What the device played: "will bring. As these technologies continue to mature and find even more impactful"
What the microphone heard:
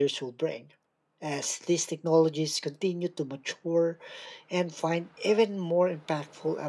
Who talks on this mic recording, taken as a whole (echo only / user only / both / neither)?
echo only